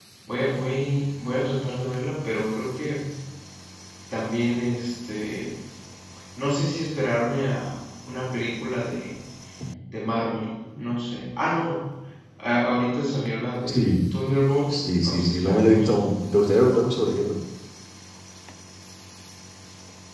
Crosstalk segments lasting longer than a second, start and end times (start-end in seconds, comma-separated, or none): 14.7-16.0